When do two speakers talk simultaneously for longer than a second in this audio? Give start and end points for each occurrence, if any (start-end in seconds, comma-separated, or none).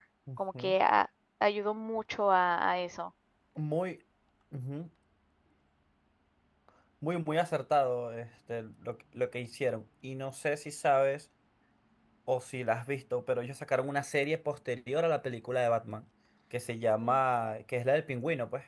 none